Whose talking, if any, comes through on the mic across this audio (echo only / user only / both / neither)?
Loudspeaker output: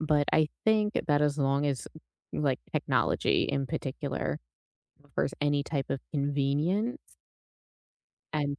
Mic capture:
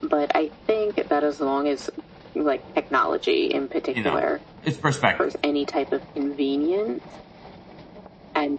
both